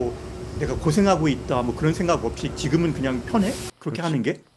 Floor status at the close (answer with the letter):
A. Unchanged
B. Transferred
B